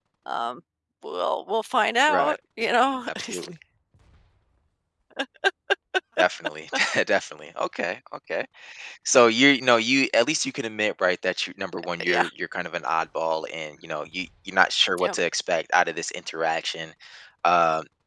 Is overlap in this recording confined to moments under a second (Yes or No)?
Yes